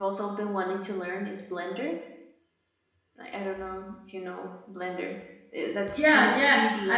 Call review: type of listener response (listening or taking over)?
taking over